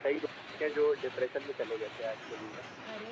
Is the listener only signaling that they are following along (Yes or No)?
Yes